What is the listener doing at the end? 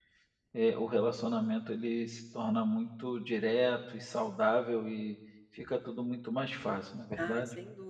taking over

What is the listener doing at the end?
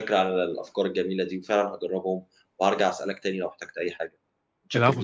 taking over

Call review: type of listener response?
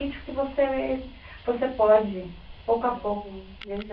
taking over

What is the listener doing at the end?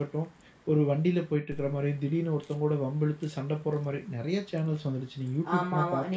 taking over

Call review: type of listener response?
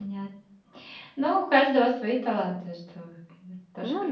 taking over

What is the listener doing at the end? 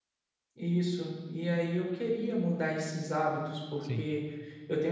listening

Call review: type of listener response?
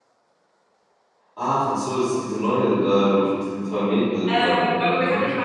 taking over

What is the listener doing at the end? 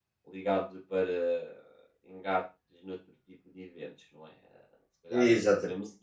listening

